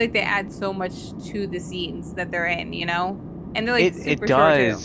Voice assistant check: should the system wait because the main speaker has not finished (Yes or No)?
No